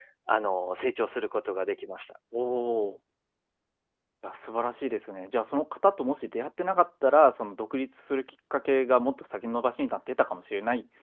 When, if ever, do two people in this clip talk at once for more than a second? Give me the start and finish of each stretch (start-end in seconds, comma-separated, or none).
none